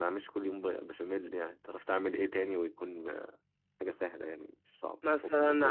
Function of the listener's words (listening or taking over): taking over